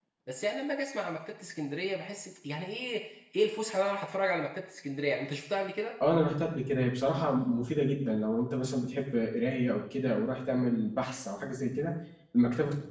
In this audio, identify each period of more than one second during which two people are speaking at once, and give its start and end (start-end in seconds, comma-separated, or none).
none